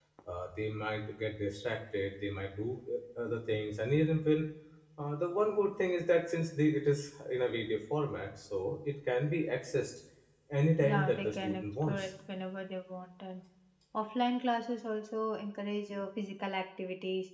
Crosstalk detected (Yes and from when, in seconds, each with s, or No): Yes, from 10.8 s